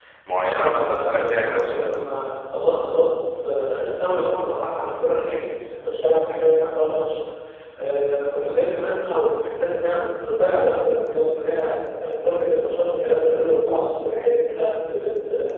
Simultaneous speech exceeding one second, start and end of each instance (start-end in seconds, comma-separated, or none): 0.5-1.9